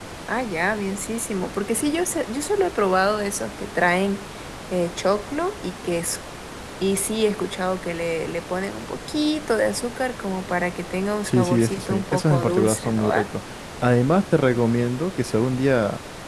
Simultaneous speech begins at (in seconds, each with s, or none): 11.2 s